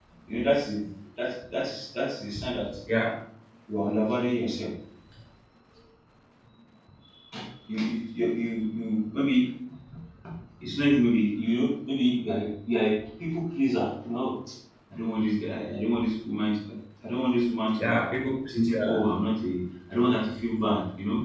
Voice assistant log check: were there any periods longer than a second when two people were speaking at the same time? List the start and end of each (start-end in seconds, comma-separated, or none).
none